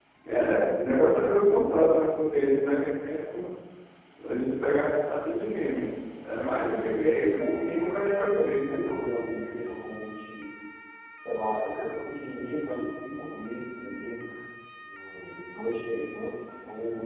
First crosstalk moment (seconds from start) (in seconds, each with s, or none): 7.4 s